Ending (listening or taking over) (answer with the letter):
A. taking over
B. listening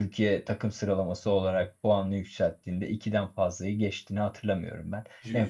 B